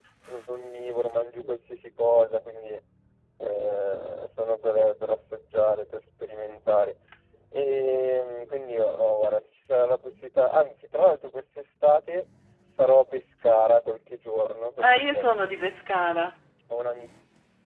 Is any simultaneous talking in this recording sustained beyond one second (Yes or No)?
No